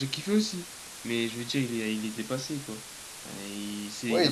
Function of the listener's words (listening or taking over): taking over